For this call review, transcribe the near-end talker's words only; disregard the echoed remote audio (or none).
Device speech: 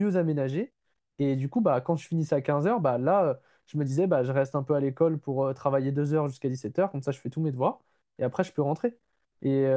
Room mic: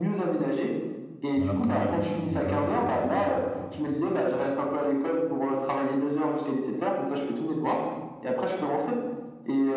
Alors que oui, les horaires étaient pas du tout...